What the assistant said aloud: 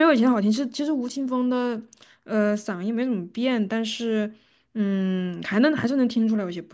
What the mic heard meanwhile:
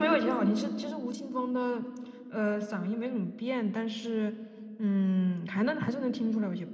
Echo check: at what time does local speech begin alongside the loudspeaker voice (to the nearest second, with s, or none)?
none